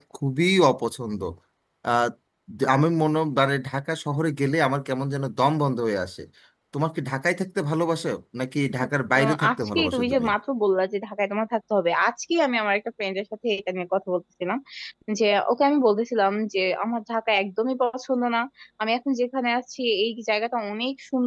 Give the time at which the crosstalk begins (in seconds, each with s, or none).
8.8 s